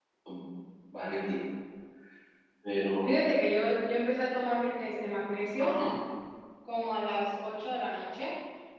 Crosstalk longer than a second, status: none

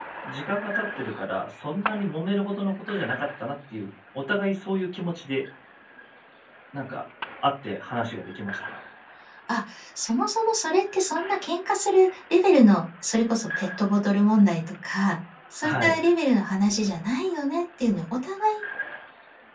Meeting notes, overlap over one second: none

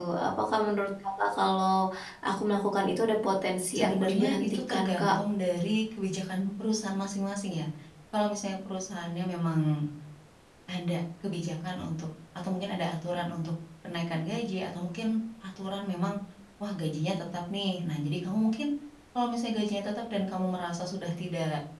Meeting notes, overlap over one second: present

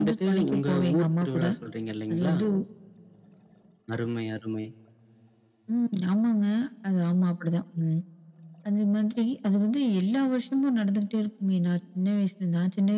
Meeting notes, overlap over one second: present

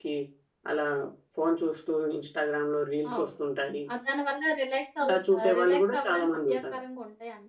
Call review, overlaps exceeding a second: present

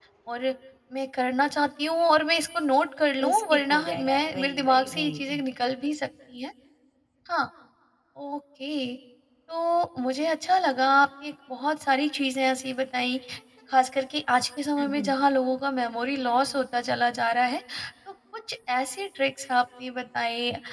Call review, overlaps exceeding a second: present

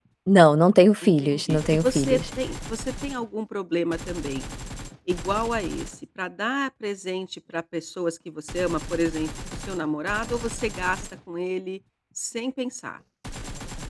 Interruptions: present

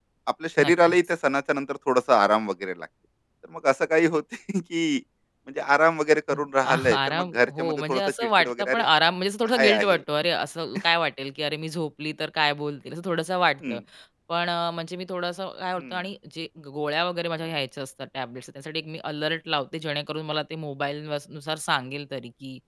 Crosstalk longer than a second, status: present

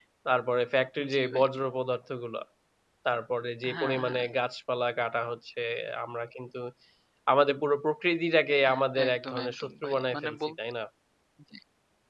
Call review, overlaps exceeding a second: present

